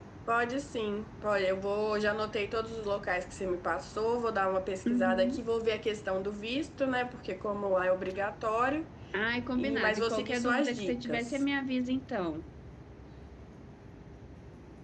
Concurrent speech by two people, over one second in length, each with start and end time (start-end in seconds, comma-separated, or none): 9.6-11.4